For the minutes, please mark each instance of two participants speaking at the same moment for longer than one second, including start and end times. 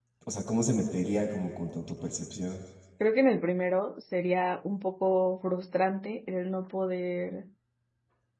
none

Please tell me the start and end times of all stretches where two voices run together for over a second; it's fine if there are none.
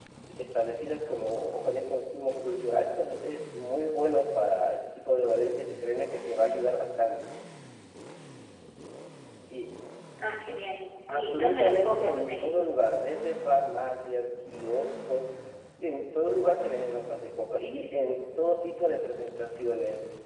11.1-12.5

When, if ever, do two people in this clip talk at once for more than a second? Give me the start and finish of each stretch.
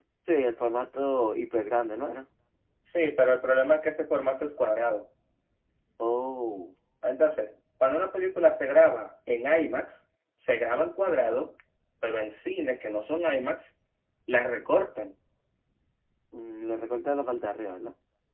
none

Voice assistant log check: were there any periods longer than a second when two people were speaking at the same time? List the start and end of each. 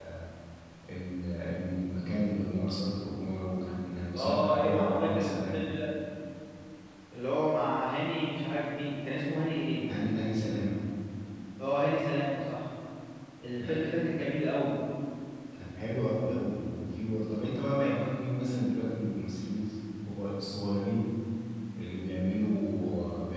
4.1-5.6

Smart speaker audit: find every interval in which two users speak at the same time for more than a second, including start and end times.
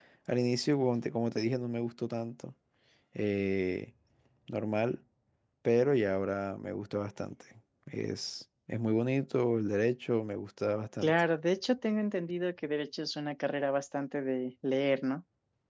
none

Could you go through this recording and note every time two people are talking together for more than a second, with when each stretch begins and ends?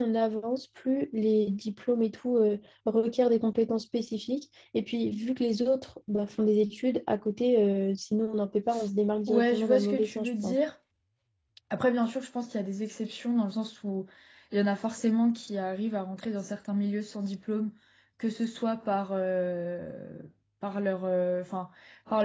9.3-10.6

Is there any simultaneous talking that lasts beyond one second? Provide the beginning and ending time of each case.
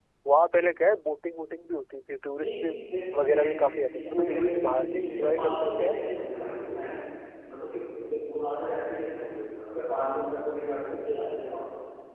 4.0-6.0

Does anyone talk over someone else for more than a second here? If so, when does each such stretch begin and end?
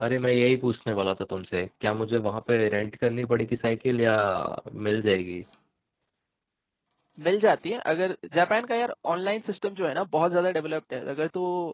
none

